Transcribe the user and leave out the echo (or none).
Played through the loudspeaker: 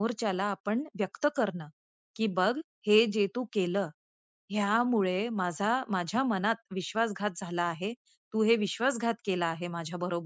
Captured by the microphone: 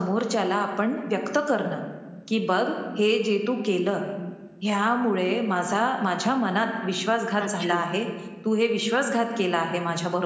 अच्छा.